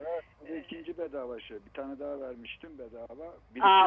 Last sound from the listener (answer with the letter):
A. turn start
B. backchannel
A